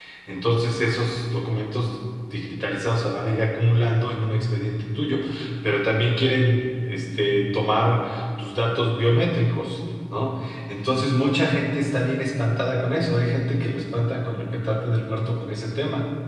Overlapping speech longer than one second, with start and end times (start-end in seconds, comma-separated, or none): none